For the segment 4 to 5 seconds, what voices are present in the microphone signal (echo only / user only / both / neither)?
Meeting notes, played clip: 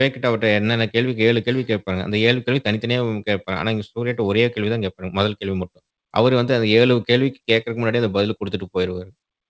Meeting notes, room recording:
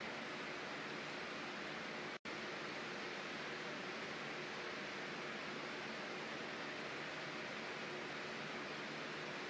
neither